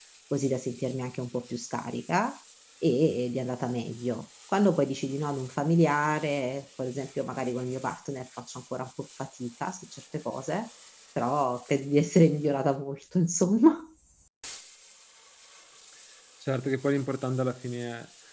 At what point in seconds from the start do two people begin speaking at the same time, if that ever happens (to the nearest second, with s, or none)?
none